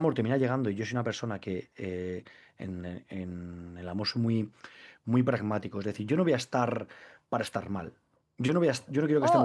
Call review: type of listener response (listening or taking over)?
taking over